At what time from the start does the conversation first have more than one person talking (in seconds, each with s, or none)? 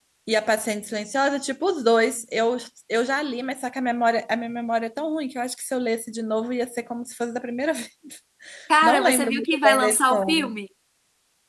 8.8 s